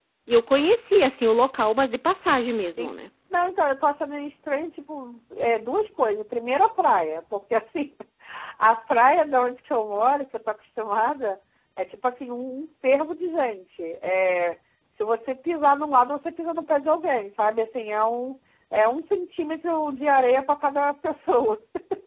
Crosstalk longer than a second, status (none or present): none